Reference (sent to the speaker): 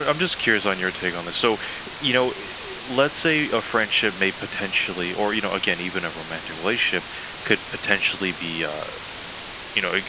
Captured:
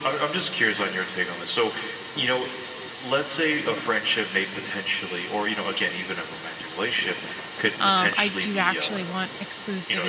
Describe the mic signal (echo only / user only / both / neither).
both